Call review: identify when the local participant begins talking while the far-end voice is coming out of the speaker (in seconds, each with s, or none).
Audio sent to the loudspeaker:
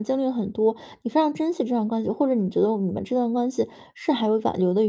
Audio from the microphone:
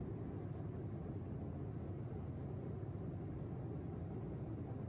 none